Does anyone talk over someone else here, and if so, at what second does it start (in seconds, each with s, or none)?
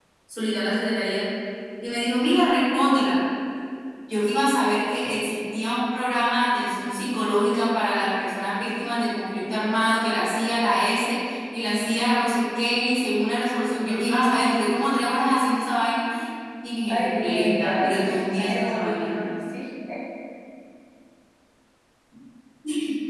16.9 s